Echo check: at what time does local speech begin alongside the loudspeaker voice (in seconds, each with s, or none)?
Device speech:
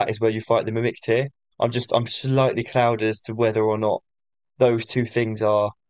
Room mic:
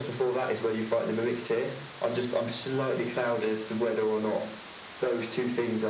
none